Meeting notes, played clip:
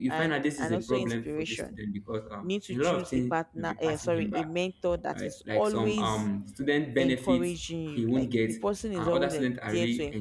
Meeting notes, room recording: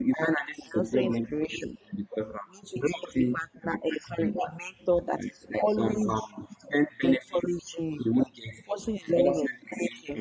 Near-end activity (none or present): none